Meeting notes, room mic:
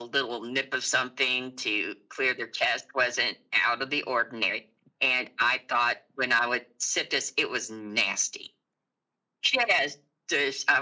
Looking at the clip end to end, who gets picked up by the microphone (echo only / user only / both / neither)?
echo only